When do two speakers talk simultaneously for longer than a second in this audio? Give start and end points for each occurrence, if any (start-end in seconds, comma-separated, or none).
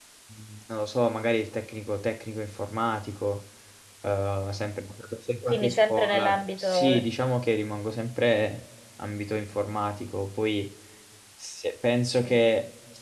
5.5-7.0